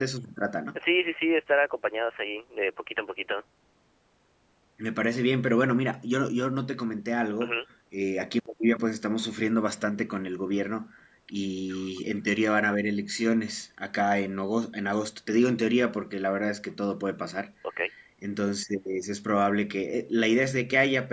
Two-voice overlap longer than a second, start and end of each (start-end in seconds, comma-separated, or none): none